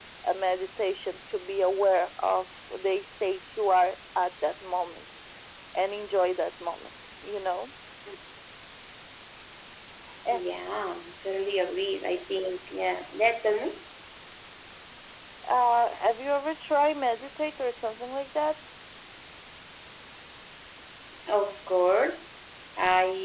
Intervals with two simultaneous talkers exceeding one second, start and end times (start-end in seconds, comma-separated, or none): none